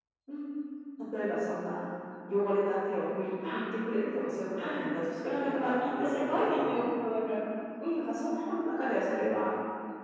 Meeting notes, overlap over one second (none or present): present